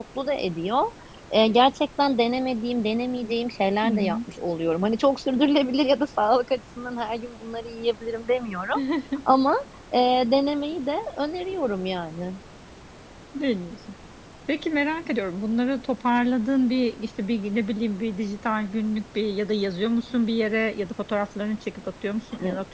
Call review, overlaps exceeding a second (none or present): none